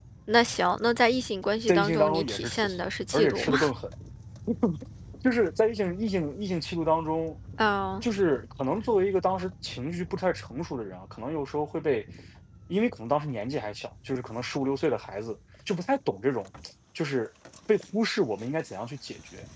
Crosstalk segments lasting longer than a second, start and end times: 1.7-3.6

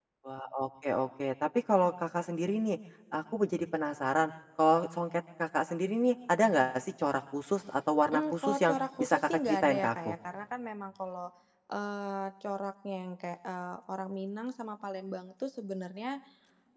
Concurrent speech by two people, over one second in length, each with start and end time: 8.1-10.1

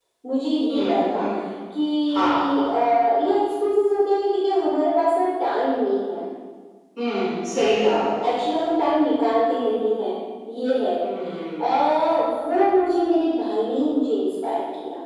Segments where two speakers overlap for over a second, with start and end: none

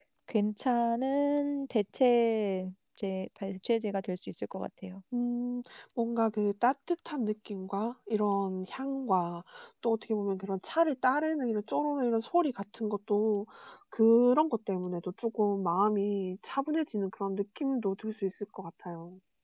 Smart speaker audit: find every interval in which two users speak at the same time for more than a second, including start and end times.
none

